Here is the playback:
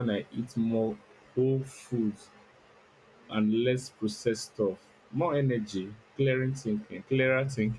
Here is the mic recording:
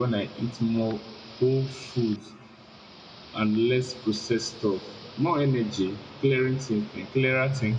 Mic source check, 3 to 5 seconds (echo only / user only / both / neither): echo only